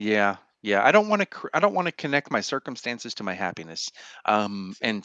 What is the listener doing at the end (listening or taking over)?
listening